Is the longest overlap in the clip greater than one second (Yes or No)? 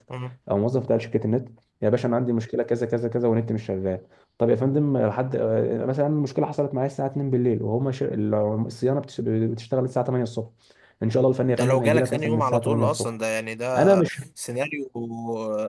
Yes